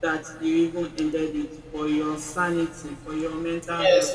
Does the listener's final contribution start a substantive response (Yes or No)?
Yes